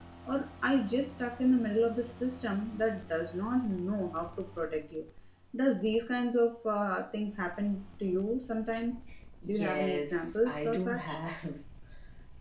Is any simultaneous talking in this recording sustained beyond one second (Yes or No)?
Yes